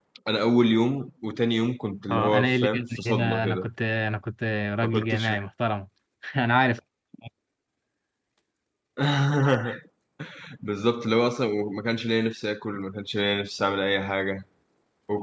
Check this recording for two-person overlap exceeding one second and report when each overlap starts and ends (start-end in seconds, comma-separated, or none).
2.1-3.7